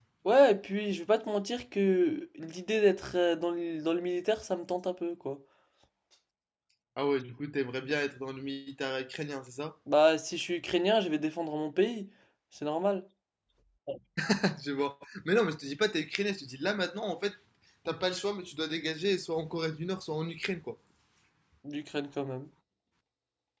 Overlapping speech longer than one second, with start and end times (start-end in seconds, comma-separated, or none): none